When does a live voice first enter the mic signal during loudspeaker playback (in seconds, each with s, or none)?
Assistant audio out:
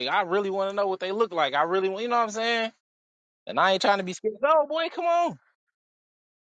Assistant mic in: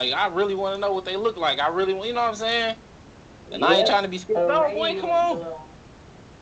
3.4 s